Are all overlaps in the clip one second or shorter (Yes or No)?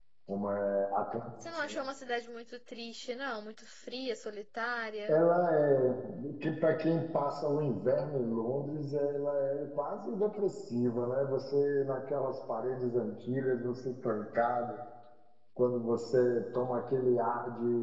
Yes